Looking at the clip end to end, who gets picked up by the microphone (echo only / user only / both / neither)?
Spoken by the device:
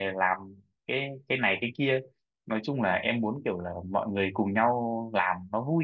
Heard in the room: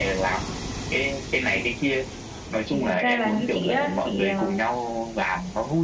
both